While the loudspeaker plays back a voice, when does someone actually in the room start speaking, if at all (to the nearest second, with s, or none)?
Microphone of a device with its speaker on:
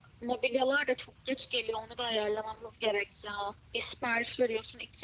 none